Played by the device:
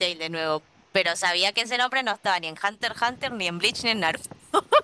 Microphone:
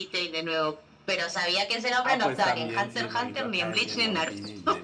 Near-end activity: present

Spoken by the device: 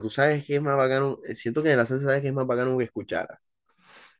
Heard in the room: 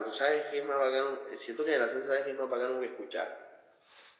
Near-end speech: none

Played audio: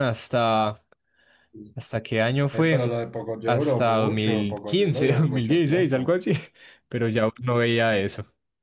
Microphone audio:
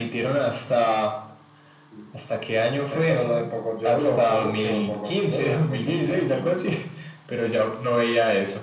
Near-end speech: none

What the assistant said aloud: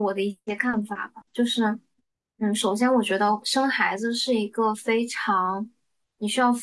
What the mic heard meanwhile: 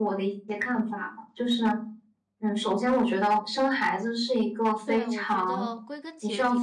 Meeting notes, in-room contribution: present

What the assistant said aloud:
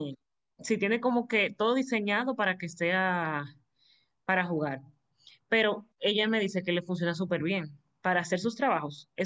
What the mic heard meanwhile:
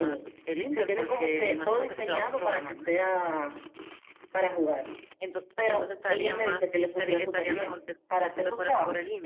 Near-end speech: present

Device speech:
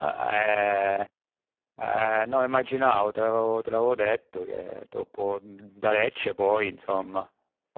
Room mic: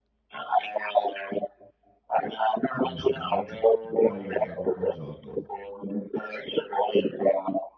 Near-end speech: present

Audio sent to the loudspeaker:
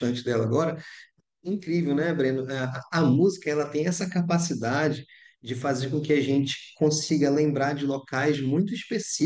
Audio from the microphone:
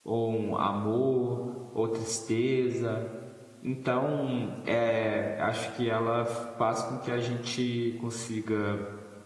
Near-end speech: present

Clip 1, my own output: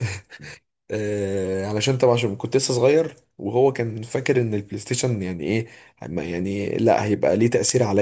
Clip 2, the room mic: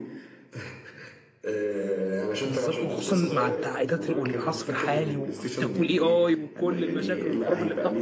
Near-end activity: present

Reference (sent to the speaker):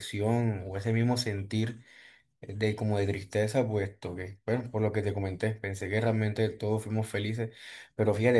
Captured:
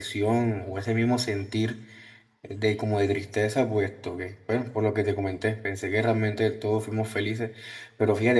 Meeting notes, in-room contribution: none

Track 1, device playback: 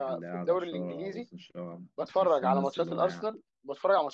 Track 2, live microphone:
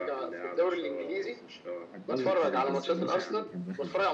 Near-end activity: present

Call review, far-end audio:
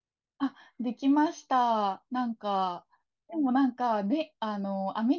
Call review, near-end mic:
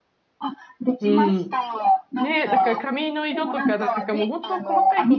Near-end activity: present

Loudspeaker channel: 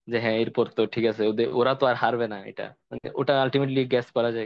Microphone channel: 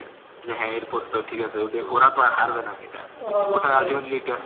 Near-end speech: present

